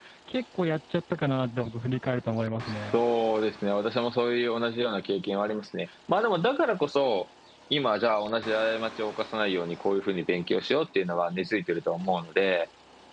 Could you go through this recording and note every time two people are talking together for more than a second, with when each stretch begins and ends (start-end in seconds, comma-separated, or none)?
none